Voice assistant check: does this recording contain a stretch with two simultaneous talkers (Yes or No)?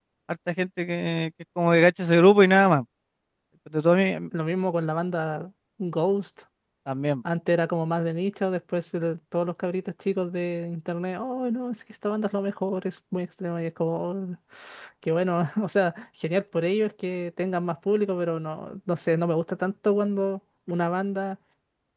No